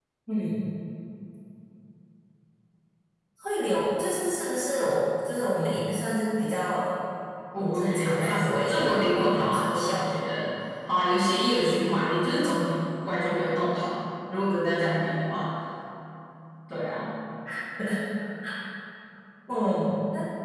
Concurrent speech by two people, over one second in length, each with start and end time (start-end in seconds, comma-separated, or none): 7.6-10.0